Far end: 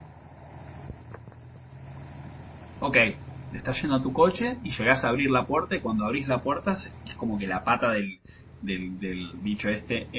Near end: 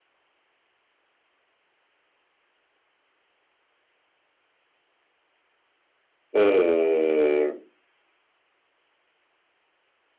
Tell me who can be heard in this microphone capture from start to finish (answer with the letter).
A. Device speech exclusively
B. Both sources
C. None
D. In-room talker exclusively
D